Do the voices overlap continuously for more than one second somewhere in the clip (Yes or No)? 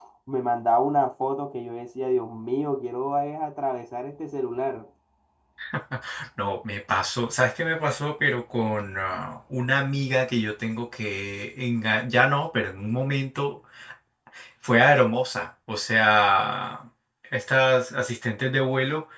No